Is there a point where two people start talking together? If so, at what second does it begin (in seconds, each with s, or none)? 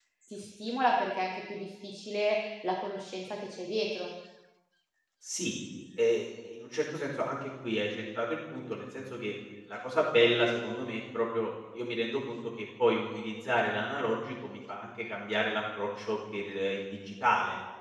none